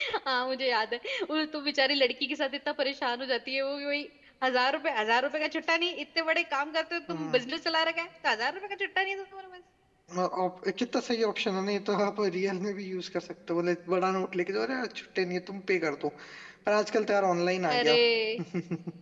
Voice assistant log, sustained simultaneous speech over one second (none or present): none